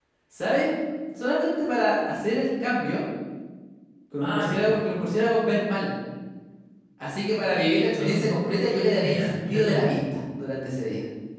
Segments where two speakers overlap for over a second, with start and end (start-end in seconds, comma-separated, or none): 8.0-9.9